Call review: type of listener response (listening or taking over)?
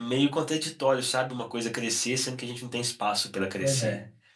taking over